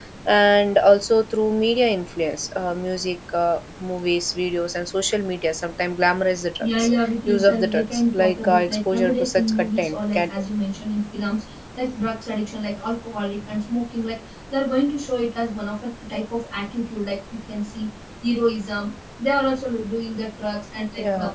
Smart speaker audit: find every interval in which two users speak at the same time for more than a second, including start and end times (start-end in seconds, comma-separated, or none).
6.6-10.3